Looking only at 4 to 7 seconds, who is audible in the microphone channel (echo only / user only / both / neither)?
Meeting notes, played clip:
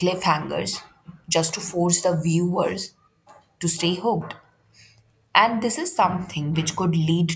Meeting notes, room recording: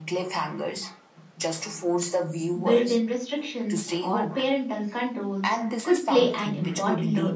both